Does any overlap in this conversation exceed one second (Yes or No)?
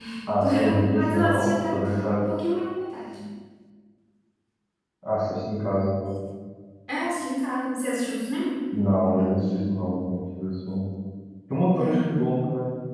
Yes